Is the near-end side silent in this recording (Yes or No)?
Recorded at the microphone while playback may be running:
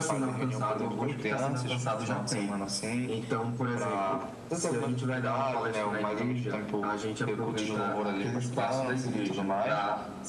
Yes